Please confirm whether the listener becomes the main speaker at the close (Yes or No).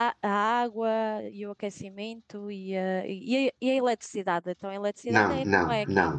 Yes